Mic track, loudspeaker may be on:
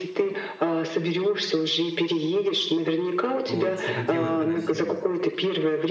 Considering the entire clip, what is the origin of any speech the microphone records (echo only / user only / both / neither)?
both